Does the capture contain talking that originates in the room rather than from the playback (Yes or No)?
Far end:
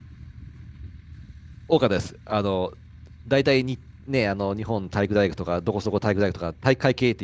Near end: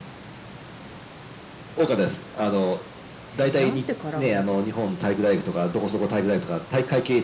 Yes